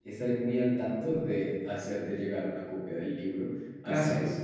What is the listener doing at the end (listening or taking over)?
listening